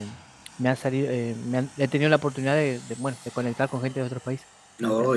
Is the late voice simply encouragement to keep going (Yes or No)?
No